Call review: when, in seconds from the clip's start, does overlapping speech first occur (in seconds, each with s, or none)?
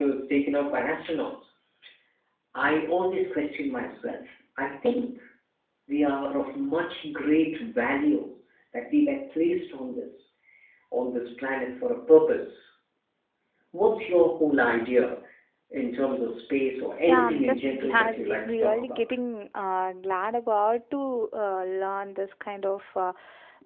17.1 s